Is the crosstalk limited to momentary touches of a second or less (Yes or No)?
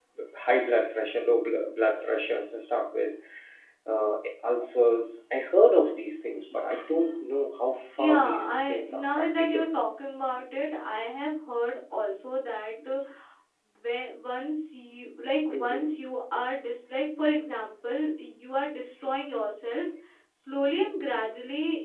No